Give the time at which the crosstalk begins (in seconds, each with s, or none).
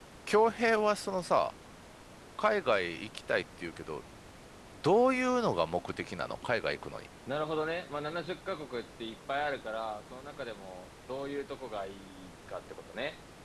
none